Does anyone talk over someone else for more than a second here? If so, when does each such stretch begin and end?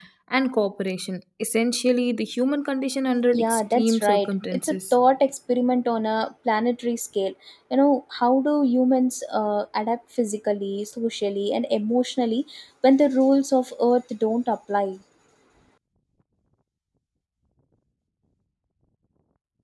3.3-4.9

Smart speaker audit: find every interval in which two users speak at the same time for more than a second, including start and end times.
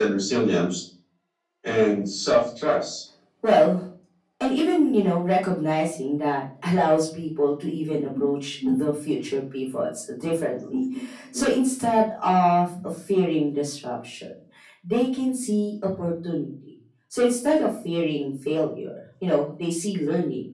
none

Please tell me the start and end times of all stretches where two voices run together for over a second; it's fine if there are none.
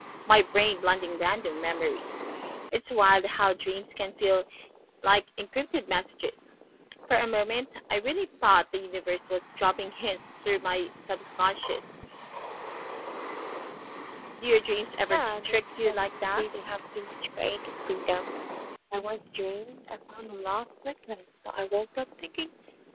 15.1-16.4

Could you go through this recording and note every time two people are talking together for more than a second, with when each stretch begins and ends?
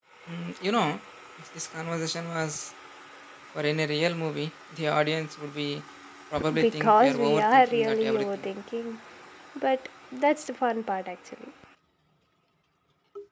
6.6-8.5

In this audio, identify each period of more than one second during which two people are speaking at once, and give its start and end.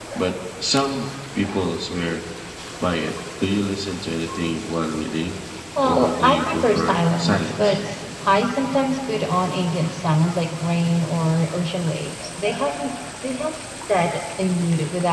5.8-7.8

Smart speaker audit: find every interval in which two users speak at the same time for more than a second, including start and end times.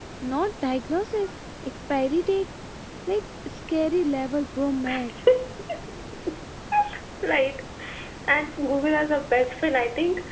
none

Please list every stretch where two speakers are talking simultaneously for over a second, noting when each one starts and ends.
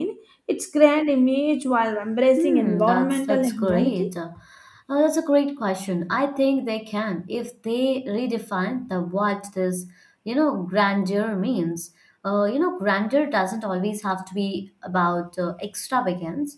2.4-4.1

